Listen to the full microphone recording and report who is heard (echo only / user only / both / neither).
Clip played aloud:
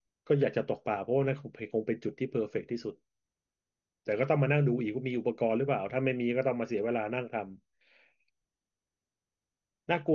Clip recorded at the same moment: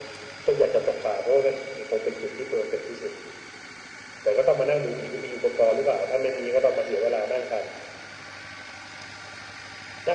echo only